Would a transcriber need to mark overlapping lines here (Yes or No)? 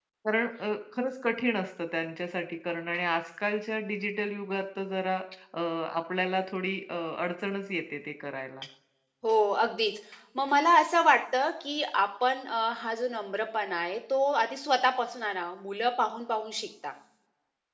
No